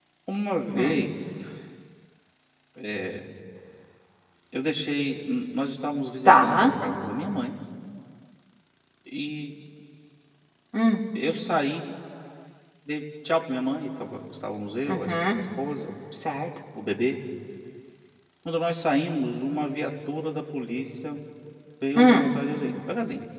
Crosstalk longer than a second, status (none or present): none